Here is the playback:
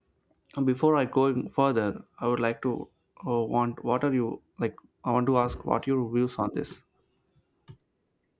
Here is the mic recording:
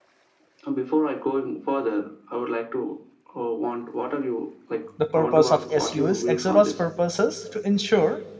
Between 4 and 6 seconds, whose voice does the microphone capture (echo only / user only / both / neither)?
both